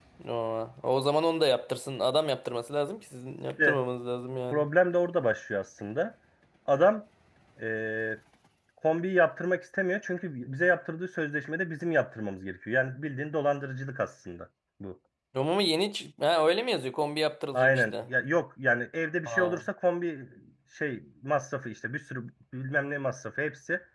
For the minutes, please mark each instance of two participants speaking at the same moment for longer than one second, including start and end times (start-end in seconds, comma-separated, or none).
none